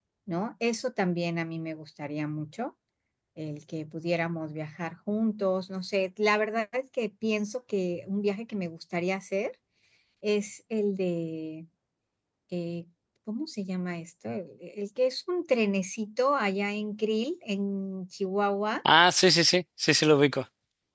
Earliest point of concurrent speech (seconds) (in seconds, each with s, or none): none